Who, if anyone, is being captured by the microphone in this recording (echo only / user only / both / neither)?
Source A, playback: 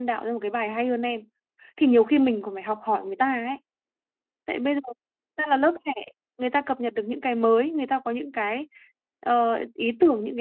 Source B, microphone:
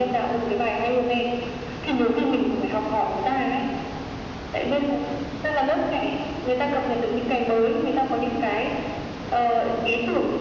echo only